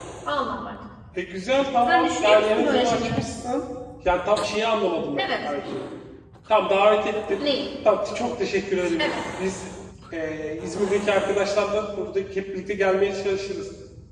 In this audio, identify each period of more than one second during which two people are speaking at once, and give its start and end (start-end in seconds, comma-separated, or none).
1.8-3.2